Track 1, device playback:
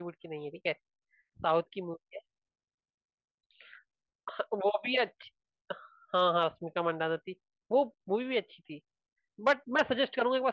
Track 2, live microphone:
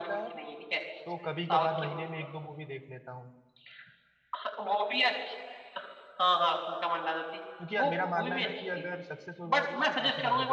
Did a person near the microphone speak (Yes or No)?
Yes